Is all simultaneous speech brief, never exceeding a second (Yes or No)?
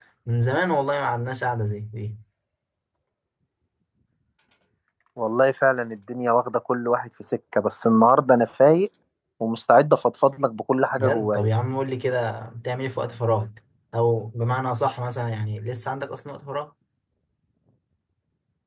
Yes